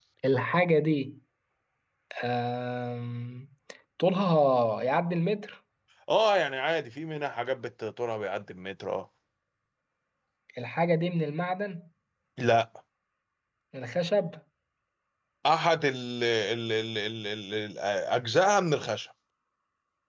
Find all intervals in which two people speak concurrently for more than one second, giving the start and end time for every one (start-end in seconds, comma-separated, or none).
none